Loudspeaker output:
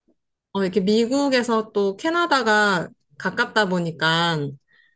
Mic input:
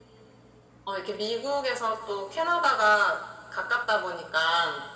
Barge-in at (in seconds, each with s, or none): none